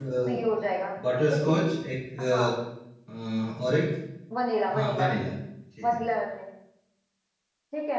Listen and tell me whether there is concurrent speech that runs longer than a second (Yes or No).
No